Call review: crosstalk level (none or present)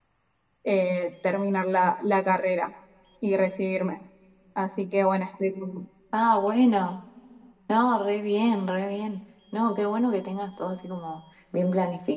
none